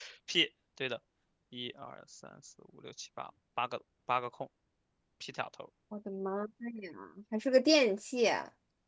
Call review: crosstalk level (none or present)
none